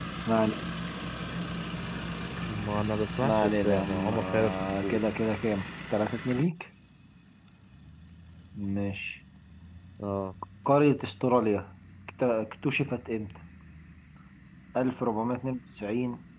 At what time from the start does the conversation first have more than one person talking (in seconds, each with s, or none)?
3.2 s